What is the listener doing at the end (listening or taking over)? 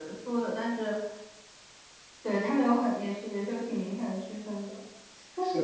listening